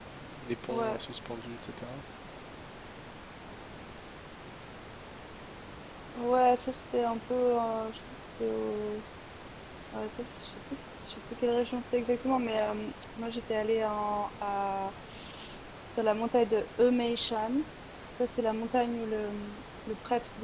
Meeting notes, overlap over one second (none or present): none